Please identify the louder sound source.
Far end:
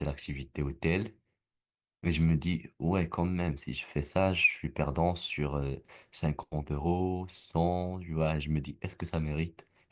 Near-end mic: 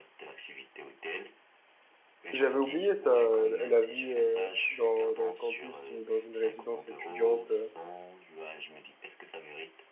user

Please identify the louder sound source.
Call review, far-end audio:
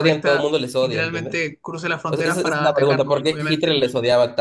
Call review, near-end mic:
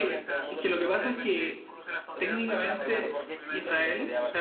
user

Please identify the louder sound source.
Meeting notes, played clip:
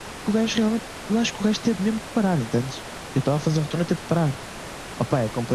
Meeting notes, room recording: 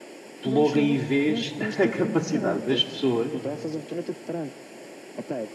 user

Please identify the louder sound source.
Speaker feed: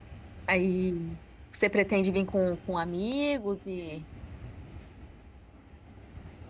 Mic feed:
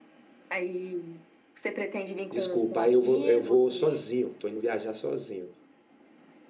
user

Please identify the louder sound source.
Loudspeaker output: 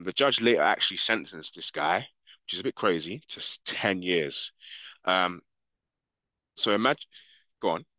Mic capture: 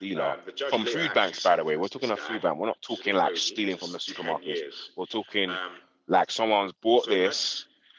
user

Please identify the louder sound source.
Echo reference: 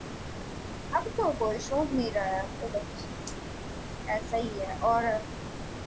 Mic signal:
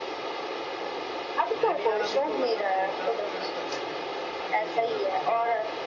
echo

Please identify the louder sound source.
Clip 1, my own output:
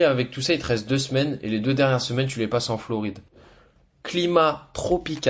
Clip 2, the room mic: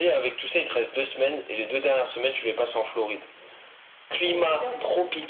echo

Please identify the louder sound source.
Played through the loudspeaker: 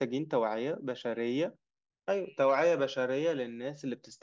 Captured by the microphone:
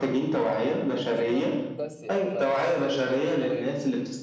echo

